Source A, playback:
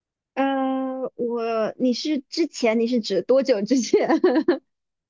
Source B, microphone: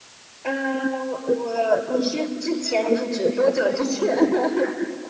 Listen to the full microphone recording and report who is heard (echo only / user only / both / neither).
both